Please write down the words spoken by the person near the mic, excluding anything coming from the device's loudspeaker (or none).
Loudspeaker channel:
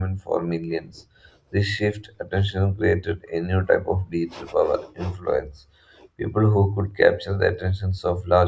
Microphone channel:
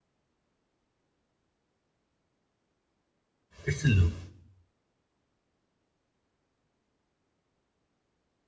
It's a loop.